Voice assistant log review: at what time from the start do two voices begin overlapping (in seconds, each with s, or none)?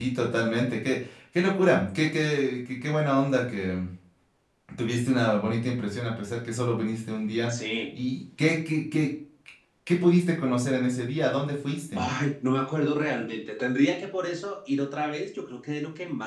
none